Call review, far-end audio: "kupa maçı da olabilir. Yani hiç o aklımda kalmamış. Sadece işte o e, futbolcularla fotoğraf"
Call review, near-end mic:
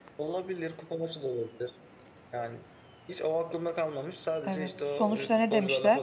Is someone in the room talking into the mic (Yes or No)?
Yes